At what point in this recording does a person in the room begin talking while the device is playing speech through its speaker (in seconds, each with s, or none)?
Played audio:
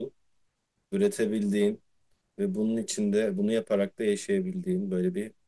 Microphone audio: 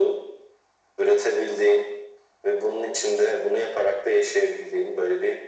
none